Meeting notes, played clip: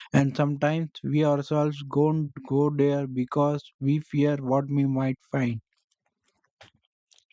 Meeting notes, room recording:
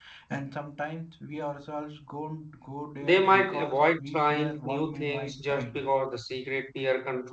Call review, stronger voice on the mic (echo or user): user